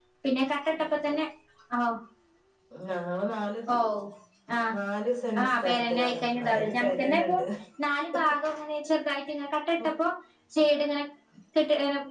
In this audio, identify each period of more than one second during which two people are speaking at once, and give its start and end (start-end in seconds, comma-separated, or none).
5.4-7.4